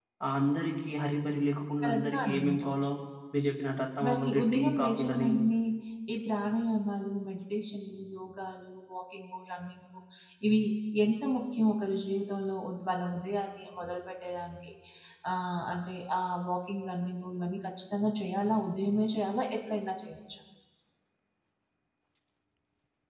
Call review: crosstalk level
present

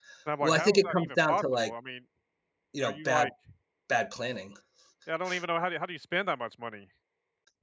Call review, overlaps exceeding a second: present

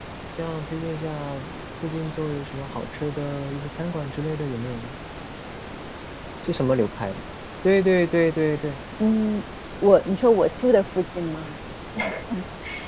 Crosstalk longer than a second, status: none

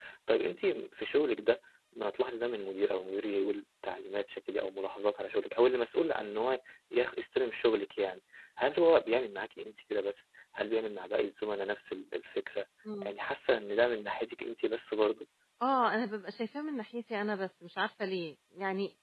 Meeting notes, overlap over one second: none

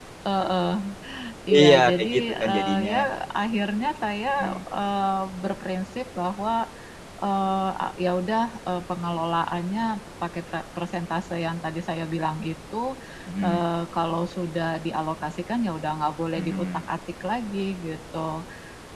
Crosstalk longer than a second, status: present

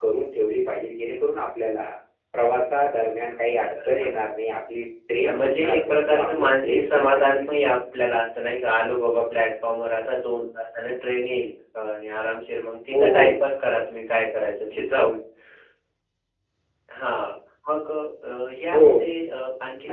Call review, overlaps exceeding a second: present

